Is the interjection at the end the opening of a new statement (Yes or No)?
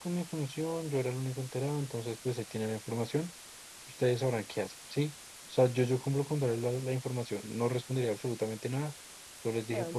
No